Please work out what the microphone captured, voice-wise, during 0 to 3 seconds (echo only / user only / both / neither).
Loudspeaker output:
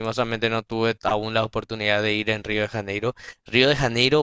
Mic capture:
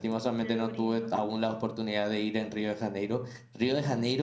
both